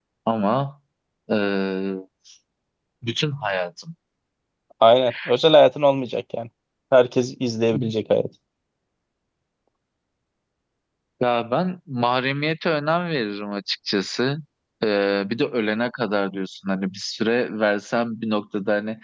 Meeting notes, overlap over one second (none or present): none